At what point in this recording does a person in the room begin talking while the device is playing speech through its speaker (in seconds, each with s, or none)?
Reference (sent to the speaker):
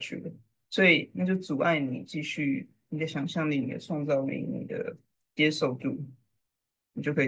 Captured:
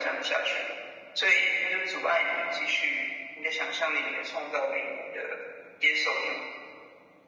none